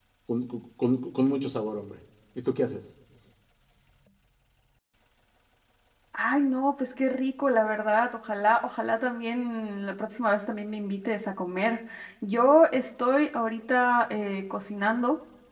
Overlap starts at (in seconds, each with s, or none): none